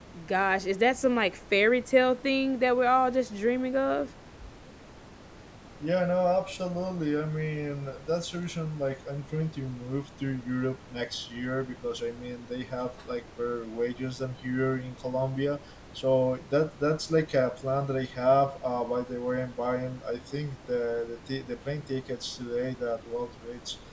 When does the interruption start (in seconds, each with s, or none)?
none